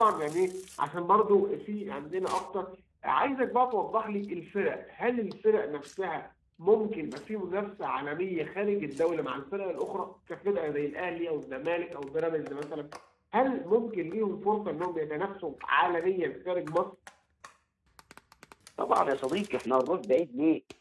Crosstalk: none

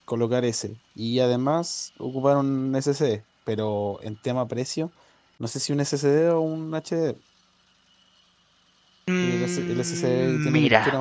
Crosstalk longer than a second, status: present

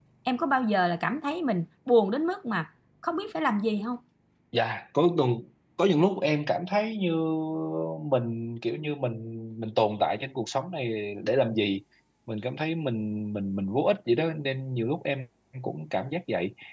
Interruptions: none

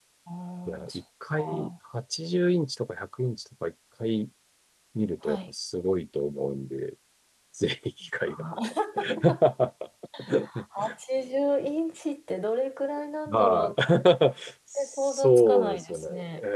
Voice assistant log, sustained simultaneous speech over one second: present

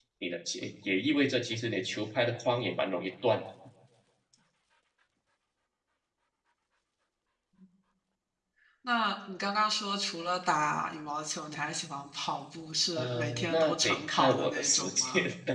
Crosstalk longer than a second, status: present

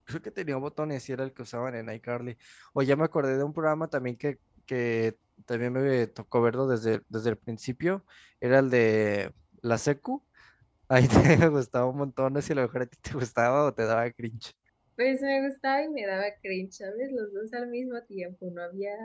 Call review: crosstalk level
none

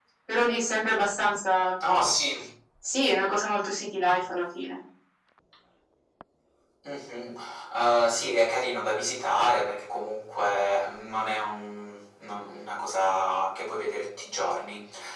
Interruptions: none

